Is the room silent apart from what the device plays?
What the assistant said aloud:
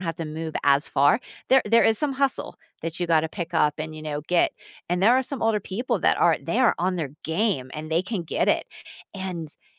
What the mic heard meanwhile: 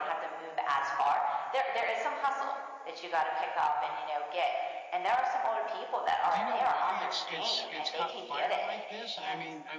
No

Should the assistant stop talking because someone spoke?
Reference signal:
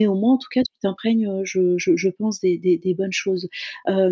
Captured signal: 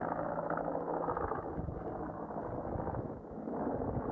No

